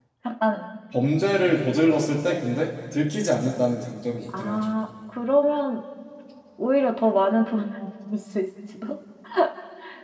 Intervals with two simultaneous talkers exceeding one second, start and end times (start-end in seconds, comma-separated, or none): none